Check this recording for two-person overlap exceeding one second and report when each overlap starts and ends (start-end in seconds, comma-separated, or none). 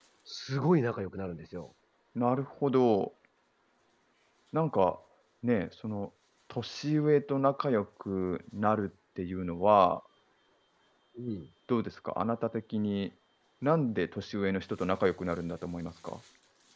none